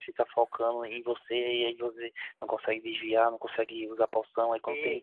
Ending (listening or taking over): listening